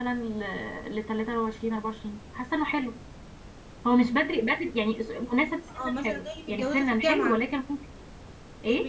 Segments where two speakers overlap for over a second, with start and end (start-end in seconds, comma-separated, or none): 5.8-7.4